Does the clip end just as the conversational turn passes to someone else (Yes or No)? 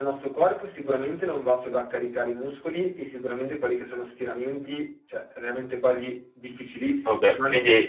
Yes